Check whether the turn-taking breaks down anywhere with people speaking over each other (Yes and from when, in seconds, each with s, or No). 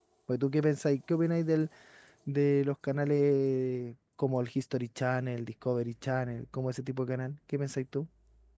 No